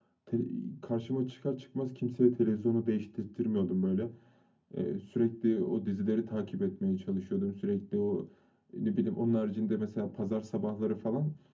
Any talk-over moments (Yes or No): No